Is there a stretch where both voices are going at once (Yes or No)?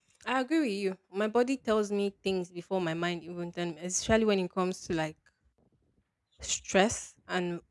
No